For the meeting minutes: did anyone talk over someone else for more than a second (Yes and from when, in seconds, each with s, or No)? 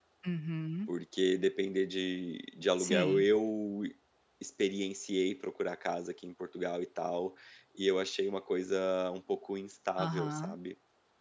No